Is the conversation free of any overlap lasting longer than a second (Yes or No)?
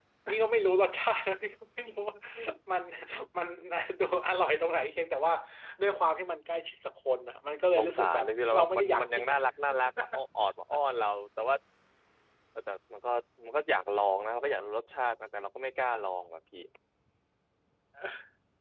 No